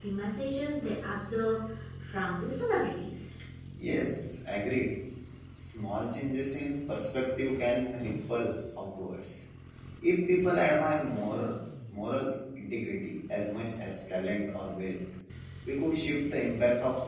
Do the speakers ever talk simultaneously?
No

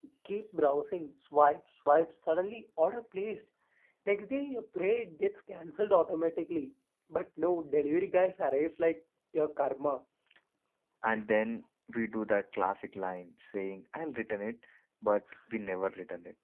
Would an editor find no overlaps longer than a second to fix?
Yes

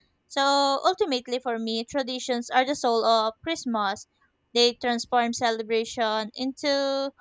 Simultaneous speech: No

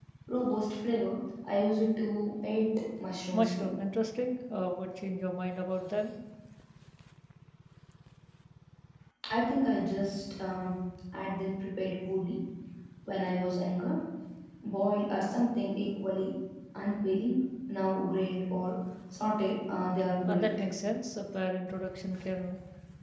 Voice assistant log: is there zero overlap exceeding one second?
Yes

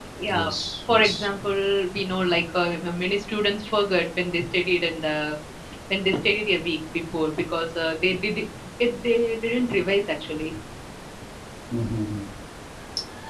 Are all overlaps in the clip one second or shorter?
Yes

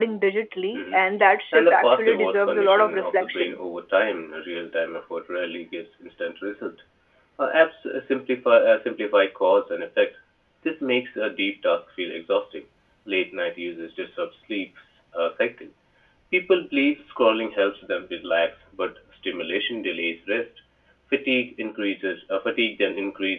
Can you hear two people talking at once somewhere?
Yes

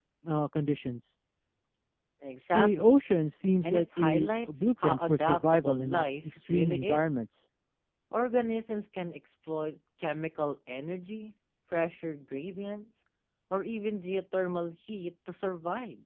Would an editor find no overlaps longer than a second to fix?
No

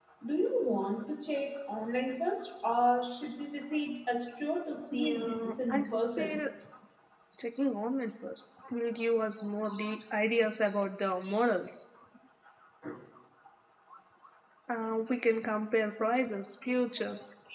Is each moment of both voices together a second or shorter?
No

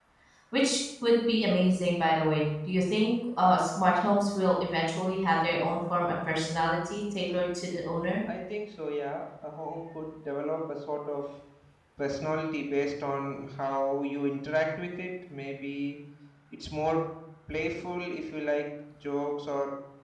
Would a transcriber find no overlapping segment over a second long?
Yes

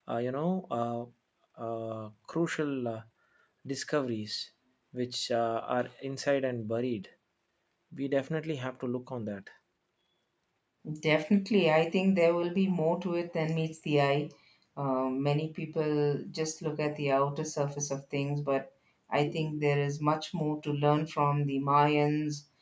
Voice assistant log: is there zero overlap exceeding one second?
Yes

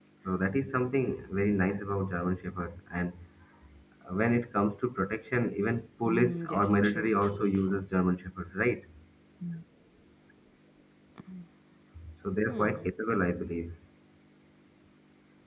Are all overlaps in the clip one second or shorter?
No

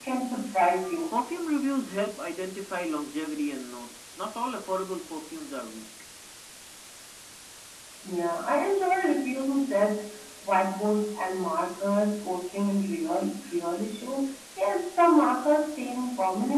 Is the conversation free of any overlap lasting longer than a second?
Yes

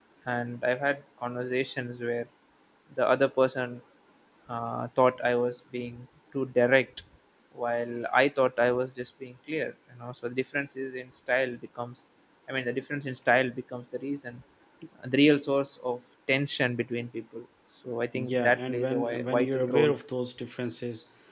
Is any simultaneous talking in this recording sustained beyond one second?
Yes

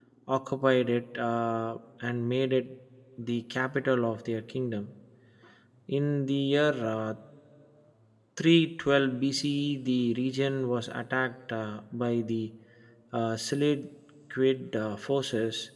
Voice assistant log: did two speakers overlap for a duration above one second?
No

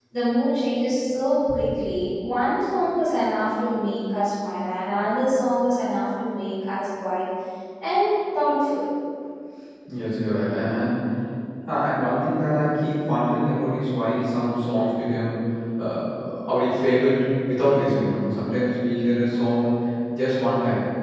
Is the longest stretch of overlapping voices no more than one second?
Yes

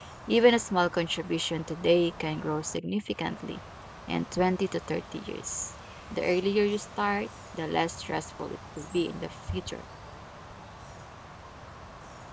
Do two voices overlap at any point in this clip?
No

